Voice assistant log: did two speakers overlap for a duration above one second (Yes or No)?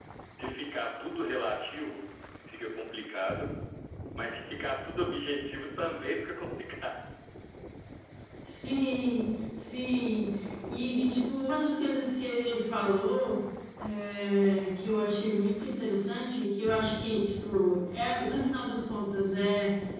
No